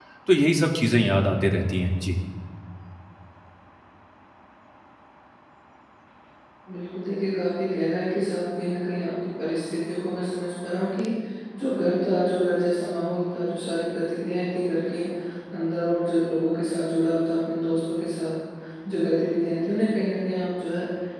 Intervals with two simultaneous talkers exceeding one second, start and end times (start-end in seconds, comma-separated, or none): none